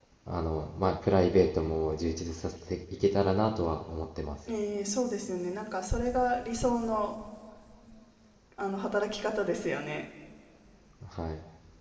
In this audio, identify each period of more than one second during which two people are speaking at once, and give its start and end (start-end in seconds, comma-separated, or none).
none